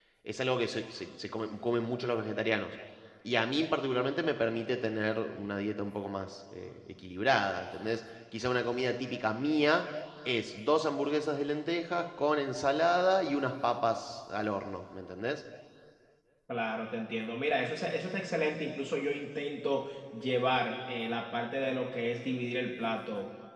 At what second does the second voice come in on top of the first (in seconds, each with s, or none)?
none